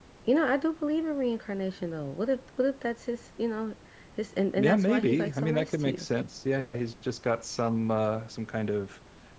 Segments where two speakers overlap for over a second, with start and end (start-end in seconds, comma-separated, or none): 4.6-6.1